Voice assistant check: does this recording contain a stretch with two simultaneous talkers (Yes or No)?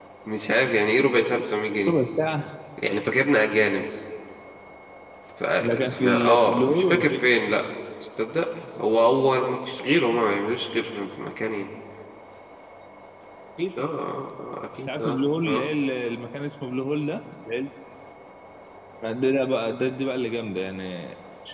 Yes